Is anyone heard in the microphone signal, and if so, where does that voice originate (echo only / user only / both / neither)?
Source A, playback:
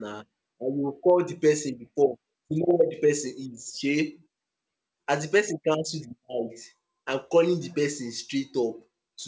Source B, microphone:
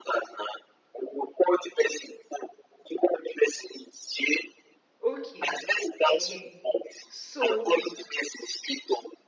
both